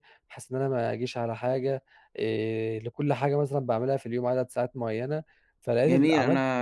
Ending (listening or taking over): taking over